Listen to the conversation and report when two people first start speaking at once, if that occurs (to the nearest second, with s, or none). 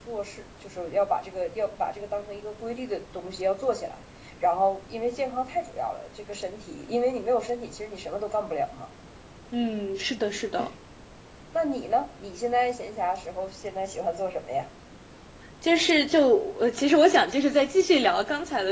none